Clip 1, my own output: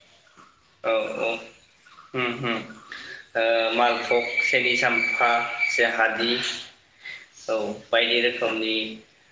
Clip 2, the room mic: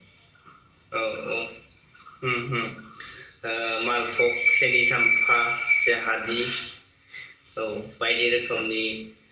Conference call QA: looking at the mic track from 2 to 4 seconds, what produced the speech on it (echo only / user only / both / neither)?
echo only